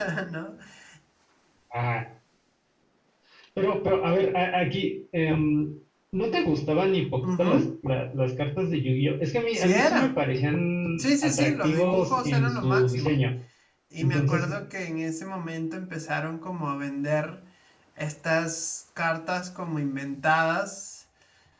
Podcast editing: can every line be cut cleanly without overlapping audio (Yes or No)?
No